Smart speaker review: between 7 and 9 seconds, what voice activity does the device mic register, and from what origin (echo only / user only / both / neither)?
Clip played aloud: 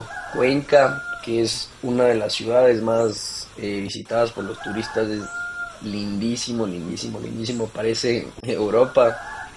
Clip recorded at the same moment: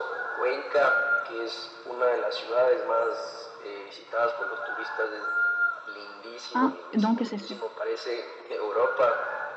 both